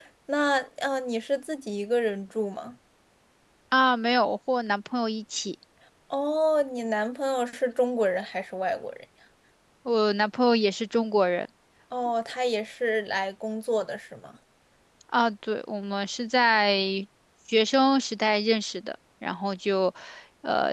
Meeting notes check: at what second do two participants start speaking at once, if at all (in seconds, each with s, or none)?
none